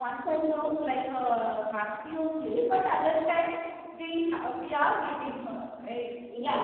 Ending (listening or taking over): taking over